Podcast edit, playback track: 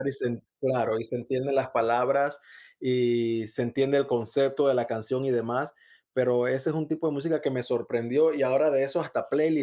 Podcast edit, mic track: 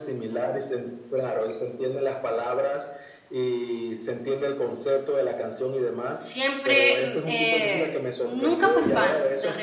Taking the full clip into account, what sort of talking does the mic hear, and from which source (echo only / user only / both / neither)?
both